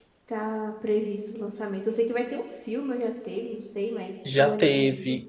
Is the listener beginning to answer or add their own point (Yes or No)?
Yes